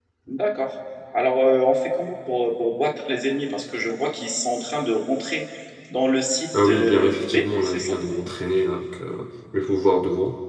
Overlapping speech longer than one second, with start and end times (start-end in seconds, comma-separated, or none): 6.6-8.0